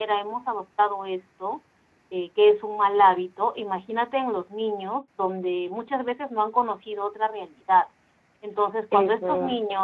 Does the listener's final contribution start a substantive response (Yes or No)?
No